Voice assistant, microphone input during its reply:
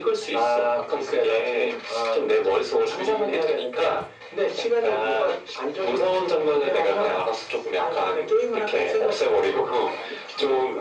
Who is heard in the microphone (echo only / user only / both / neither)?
echo only